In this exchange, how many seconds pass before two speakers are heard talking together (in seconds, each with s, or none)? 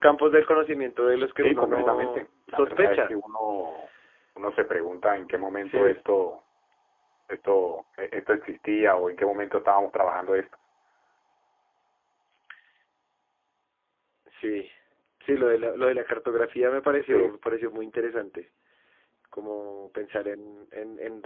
1.4 s